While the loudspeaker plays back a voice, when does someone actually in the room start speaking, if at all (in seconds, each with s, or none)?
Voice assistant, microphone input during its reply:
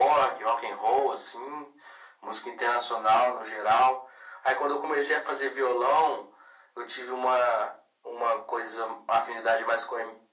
none